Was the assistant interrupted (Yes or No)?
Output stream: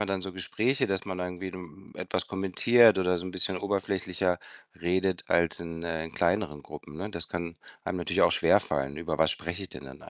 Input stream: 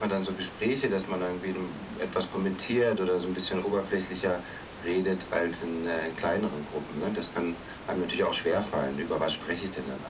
No